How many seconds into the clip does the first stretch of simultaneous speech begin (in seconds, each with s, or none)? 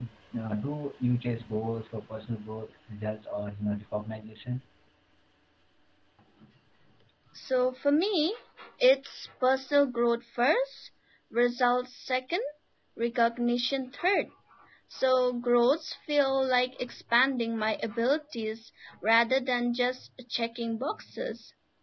none